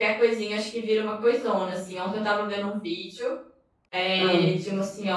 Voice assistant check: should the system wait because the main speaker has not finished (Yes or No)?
Yes